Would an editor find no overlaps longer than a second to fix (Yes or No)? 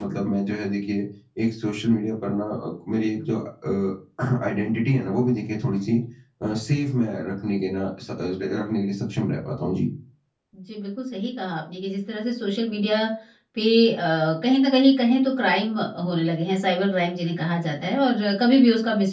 Yes